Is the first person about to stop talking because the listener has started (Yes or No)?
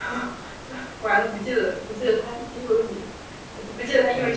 Yes